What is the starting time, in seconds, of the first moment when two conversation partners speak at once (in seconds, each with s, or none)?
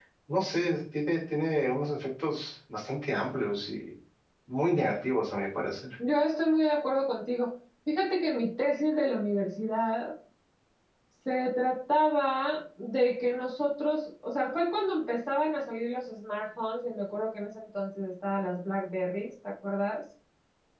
none